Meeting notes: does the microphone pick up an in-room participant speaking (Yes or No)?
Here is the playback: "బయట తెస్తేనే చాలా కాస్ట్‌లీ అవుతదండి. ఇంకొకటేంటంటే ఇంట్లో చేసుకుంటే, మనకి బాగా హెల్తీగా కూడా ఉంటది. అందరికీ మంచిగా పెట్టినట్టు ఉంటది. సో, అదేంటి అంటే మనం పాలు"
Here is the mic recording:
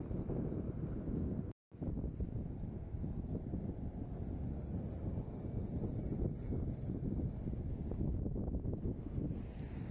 No